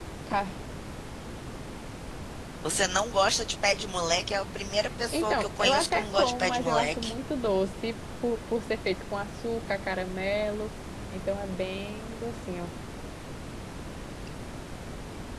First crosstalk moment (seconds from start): 5 s

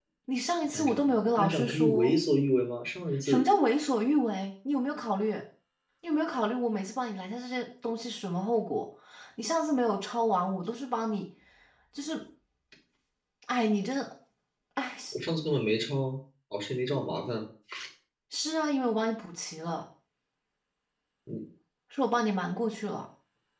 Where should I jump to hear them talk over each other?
1 s

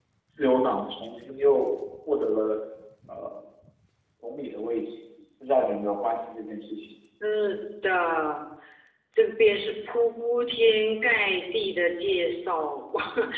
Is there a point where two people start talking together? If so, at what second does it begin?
none

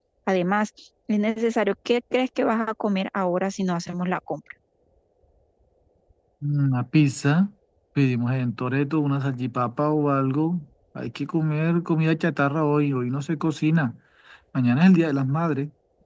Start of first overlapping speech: none

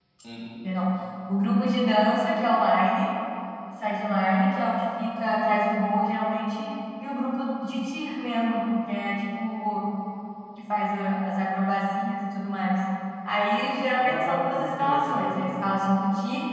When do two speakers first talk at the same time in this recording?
14 s

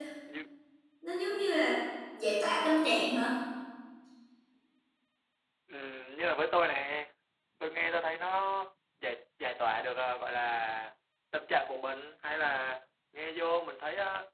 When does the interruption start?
none

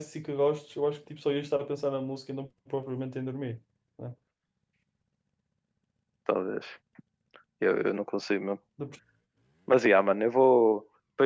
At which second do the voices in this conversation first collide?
none

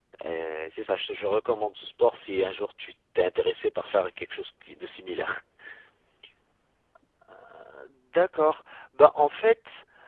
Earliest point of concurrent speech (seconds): none

